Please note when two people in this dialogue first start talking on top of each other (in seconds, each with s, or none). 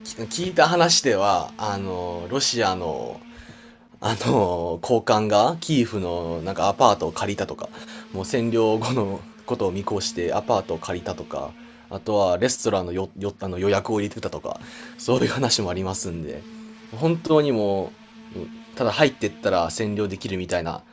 none